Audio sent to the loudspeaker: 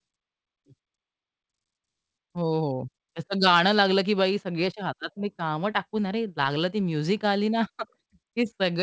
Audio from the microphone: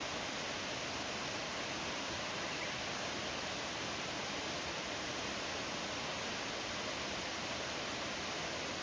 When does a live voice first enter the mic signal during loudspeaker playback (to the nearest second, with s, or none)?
none